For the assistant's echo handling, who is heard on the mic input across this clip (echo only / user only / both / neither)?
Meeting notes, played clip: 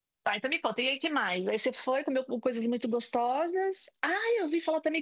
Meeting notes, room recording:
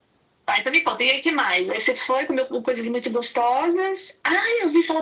echo only